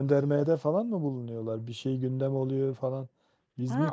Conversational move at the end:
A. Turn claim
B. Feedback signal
A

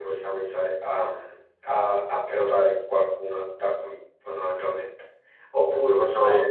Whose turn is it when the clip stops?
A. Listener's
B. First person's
B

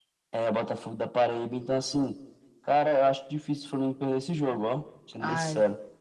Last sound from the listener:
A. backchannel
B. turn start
B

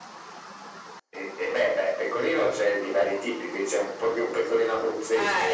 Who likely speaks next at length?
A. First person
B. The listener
B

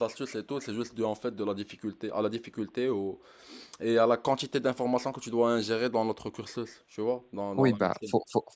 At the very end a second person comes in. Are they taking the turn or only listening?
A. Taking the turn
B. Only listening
A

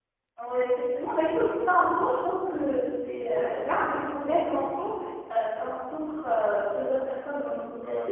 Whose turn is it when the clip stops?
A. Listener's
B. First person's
B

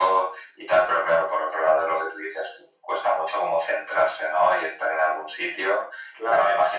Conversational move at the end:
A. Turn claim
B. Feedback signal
B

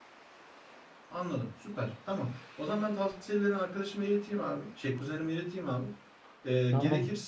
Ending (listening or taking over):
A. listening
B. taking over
A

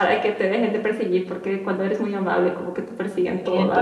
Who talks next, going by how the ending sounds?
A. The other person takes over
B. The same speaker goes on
A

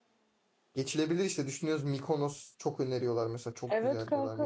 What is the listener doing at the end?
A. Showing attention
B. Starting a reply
B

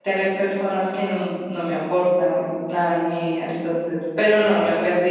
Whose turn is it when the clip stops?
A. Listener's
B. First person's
B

